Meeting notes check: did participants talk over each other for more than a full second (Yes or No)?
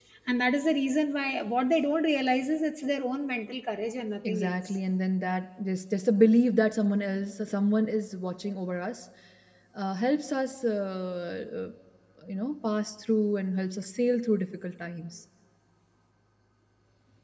No